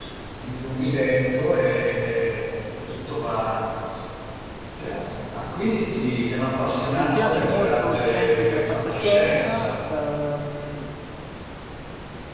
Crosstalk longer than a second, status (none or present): present